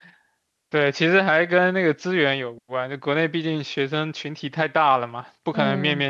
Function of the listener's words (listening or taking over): listening